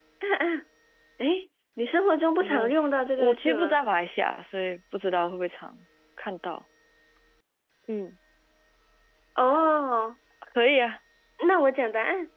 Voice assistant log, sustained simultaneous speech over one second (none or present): present